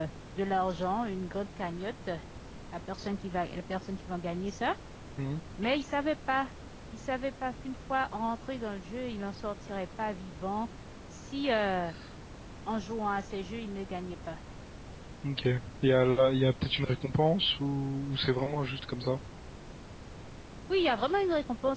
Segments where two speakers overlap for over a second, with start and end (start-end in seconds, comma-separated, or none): none